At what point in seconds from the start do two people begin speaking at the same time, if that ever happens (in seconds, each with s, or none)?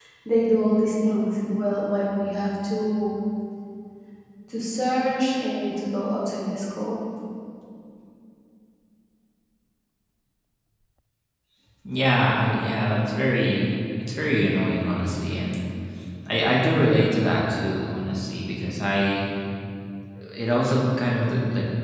none